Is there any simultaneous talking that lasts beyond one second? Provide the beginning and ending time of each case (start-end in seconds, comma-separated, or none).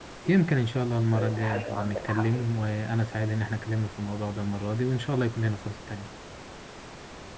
1.1-2.7